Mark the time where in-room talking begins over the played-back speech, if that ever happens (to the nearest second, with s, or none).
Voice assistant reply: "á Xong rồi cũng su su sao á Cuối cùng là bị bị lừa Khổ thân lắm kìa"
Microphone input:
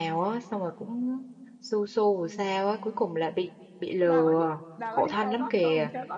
4 s